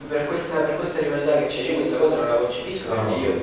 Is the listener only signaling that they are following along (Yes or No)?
Yes